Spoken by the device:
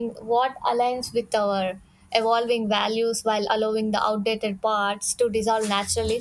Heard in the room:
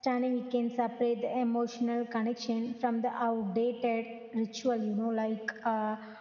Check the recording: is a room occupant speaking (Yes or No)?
Yes